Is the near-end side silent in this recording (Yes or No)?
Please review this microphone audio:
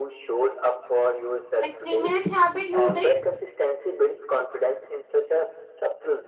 No